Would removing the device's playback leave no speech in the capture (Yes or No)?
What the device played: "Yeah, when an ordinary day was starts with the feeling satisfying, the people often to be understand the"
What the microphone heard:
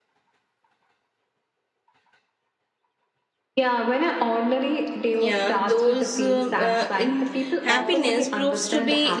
No